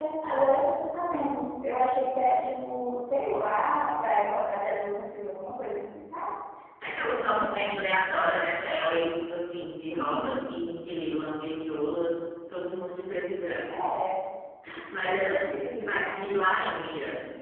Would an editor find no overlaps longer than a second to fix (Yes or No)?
No